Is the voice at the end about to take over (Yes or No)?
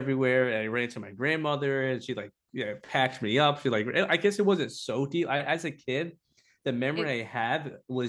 No